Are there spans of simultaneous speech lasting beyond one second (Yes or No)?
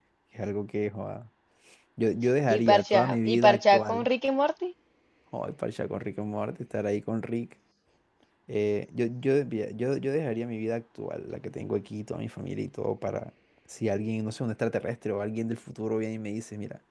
Yes